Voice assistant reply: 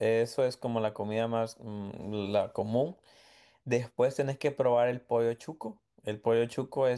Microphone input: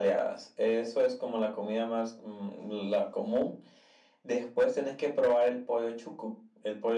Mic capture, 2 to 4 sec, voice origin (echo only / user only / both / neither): echo only